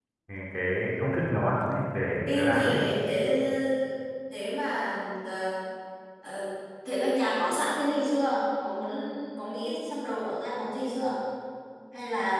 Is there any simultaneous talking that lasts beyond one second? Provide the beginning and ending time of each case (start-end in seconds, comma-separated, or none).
none